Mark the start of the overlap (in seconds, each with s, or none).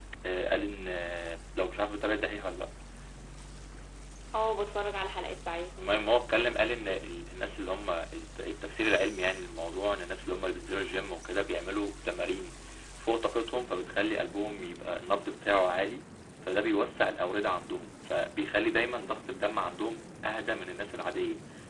none